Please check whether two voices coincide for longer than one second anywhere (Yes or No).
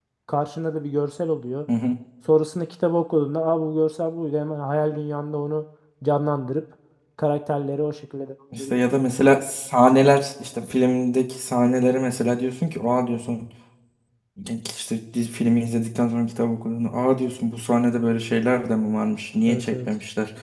No